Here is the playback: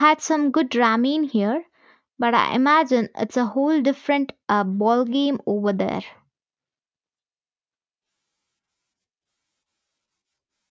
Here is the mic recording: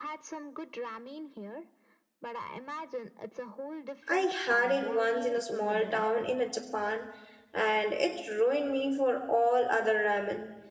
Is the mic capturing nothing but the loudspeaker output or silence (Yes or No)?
No